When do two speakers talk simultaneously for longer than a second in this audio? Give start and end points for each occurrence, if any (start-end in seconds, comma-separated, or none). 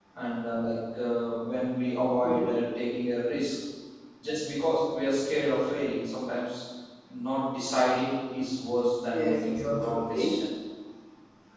9.1-10.3